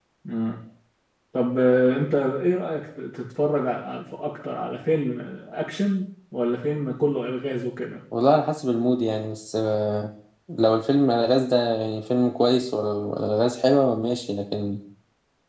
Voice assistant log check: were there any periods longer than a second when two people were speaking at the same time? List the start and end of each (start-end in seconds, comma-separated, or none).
none